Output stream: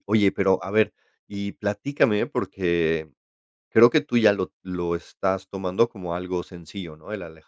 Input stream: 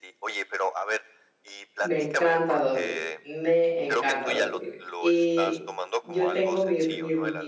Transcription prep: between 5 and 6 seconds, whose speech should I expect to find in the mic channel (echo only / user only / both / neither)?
both